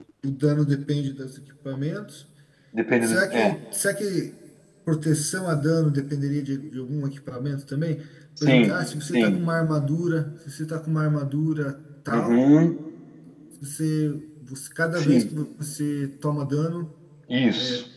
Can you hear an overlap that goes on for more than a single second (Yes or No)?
No